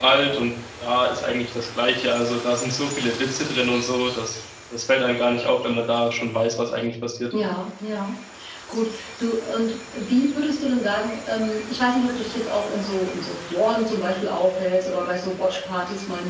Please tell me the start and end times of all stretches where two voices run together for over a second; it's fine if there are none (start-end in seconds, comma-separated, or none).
none